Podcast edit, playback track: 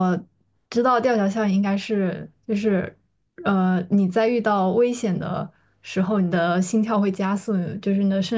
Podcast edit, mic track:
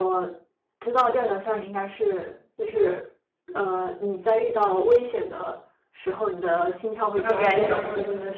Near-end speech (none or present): present